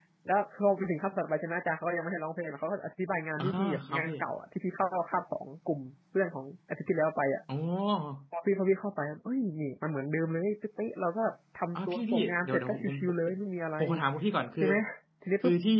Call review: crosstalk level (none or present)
present